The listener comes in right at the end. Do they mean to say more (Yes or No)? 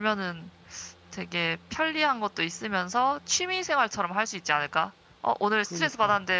No